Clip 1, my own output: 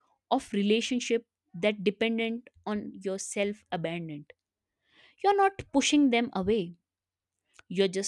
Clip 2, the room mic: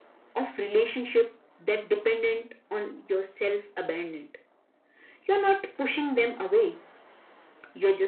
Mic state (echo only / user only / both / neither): echo only